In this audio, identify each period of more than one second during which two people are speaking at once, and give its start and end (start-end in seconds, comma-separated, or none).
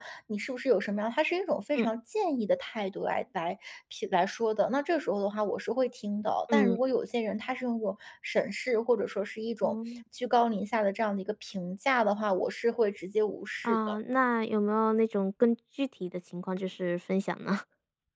none